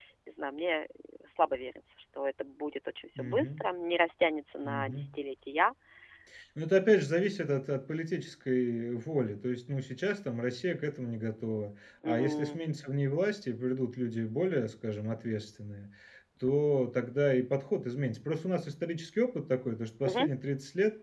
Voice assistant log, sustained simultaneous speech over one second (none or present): none